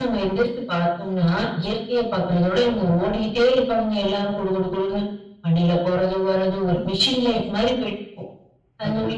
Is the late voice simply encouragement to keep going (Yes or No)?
Yes